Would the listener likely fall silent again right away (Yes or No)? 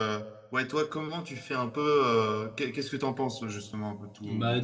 No